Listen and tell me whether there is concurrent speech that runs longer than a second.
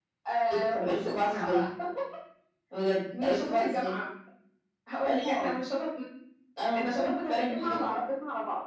Yes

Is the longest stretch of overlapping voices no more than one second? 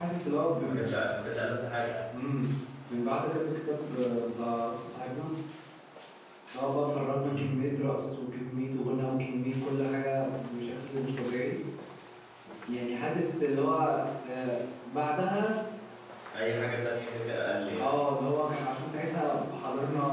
Yes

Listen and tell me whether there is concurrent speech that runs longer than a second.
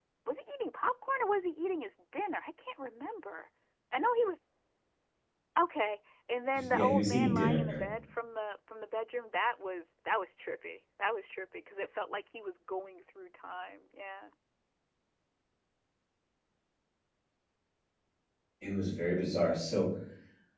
Yes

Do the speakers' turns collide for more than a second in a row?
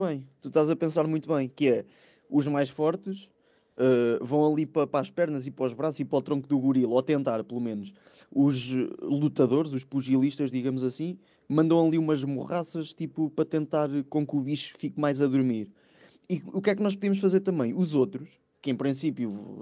No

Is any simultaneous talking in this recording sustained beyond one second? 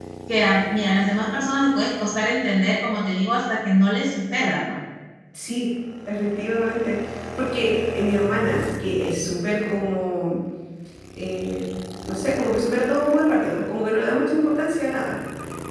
No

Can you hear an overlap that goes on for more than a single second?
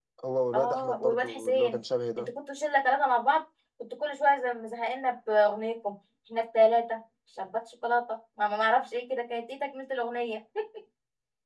Yes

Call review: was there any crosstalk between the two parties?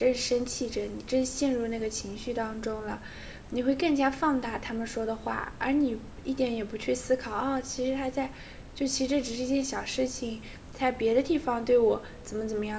No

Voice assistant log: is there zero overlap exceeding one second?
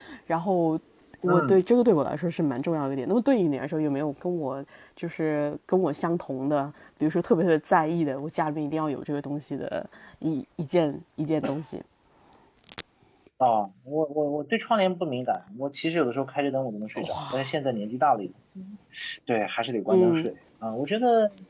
Yes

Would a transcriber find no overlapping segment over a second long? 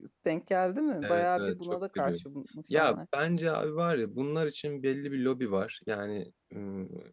No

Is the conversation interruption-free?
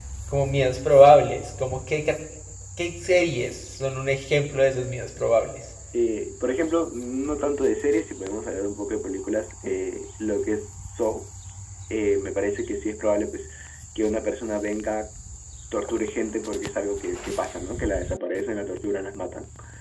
Yes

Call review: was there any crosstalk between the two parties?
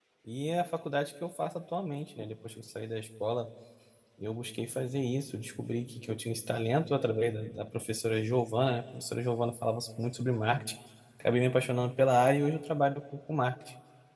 No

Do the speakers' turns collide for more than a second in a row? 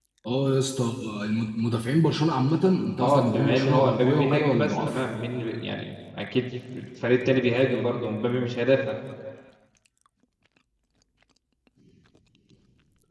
Yes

